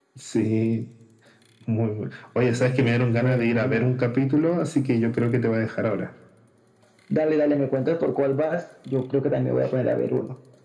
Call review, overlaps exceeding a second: present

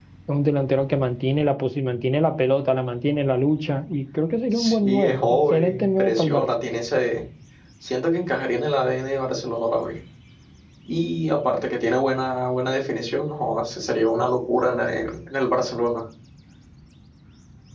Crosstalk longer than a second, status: present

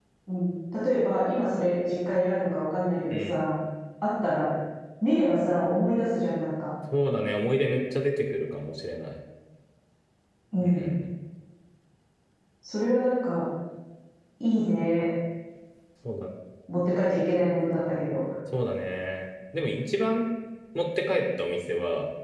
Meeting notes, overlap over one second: none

